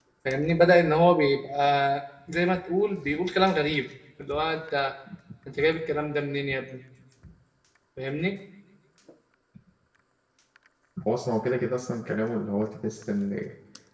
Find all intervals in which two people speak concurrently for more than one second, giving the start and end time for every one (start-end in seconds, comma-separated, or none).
none